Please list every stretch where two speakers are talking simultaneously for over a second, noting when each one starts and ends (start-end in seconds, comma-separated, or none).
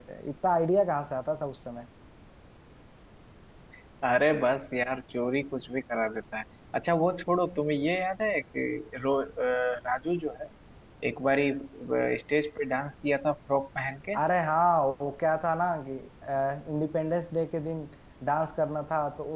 none